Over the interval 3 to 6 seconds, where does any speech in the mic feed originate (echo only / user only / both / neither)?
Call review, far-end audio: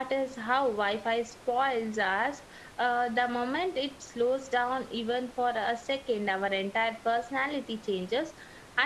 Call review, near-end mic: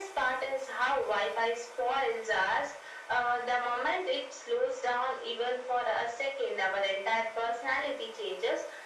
echo only